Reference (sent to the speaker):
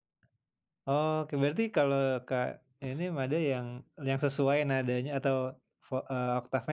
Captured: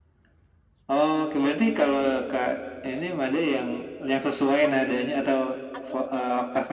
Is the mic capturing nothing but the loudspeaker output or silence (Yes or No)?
No